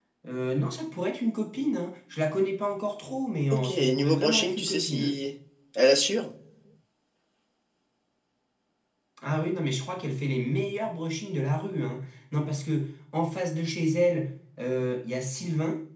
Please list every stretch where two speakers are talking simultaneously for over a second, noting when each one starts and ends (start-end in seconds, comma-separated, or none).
3.5-5.2